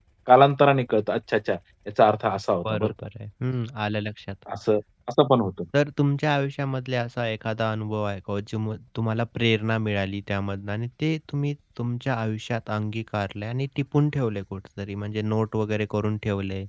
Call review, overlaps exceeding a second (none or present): none